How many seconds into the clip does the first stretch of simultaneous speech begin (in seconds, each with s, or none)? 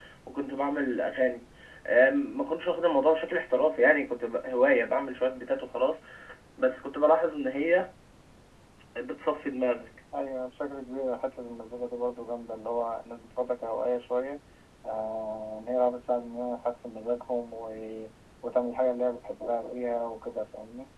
none